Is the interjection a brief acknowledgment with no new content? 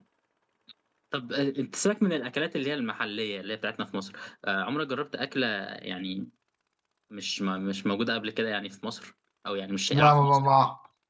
No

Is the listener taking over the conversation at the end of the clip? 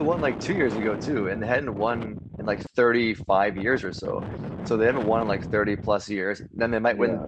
No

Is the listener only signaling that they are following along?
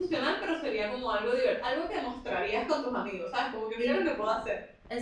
No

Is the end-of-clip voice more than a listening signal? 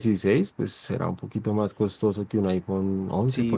Yes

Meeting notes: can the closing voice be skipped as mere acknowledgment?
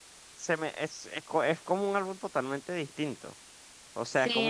Yes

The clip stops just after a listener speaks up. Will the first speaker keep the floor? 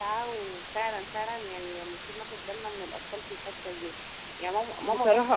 Yes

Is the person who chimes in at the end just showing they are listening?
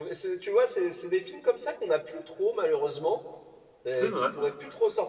Yes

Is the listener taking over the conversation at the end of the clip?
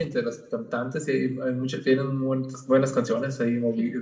No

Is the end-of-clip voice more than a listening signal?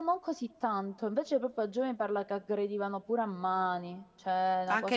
Yes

